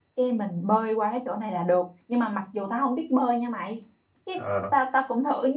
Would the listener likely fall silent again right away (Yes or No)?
Yes